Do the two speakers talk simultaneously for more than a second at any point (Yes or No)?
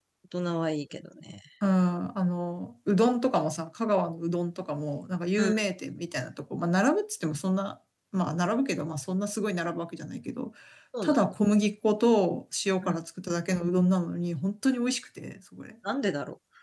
No